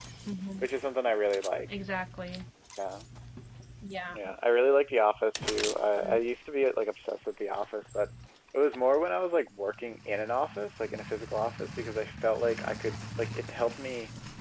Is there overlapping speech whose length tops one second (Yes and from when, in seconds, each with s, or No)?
No